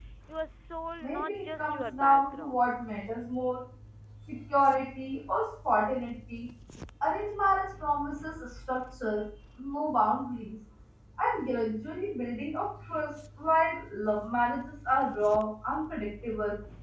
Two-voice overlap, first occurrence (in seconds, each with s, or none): 1.0 s